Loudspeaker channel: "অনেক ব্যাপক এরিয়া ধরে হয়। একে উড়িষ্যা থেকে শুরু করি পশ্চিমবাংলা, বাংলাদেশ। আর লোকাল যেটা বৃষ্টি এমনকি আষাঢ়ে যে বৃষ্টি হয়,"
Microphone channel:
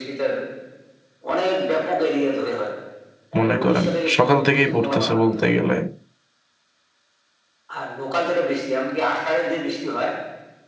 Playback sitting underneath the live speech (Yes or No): Yes